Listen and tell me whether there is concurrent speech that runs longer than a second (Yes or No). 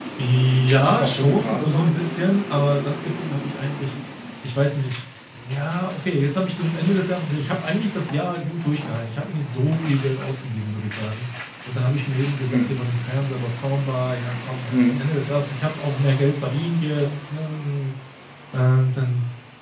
Yes